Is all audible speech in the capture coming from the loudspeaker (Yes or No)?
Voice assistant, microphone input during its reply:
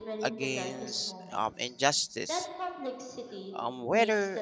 No